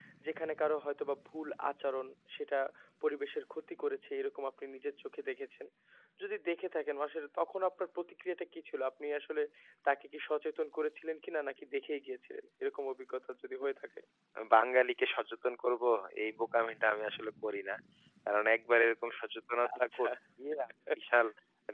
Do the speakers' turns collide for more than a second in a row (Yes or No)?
No